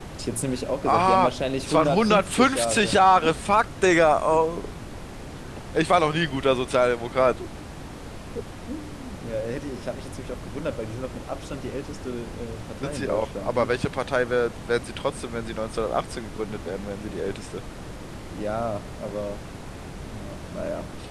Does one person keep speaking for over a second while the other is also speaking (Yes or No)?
Yes